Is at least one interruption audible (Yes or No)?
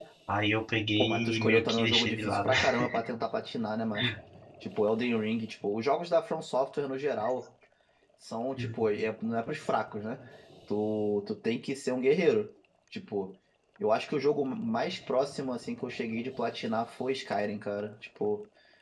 Yes